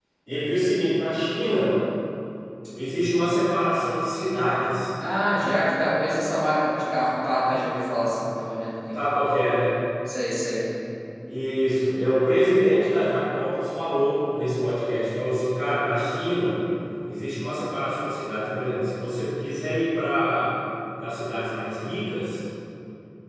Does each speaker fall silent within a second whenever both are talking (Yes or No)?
Yes